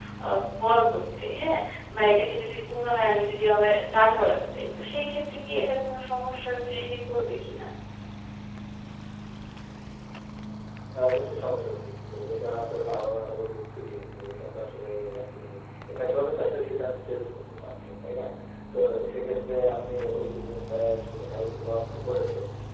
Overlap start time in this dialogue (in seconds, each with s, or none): none